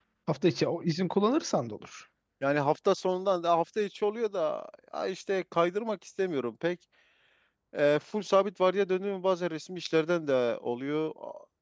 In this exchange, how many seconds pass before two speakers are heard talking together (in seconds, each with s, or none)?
none